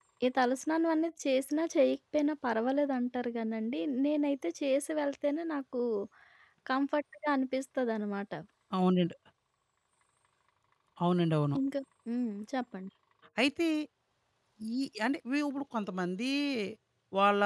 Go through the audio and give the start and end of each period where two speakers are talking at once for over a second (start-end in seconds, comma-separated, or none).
none